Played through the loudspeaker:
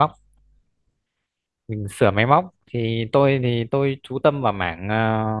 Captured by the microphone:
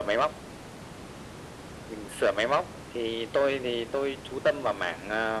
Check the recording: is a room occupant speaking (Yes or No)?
No